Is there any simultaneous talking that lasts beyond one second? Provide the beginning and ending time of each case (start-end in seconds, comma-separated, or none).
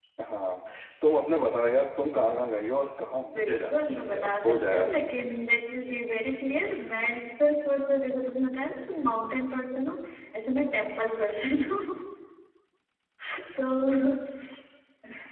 3.4-5.0